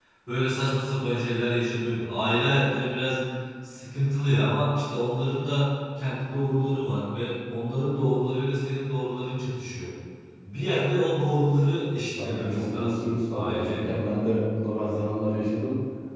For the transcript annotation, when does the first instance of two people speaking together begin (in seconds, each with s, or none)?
12.2 s